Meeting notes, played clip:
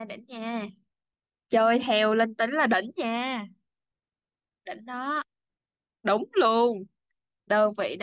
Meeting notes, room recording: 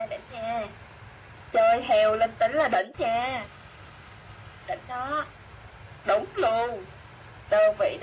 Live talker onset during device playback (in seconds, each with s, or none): none